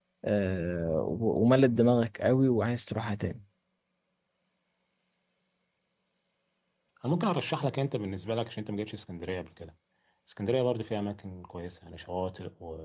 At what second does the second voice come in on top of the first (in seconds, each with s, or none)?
none